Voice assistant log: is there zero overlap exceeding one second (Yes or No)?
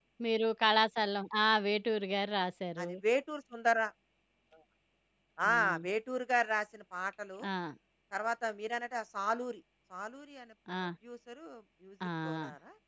Yes